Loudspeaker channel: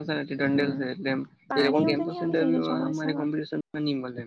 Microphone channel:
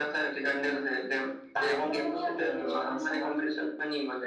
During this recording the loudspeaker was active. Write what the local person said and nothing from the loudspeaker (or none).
none